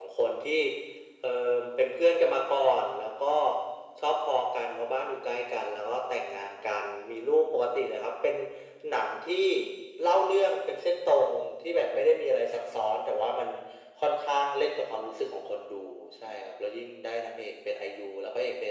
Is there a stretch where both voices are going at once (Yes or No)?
No